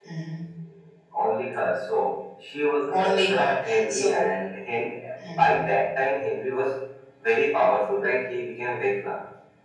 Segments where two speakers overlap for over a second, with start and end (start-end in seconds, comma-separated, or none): 2.9-4.2